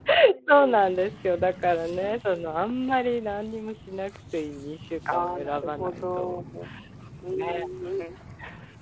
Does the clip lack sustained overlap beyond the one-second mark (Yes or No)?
No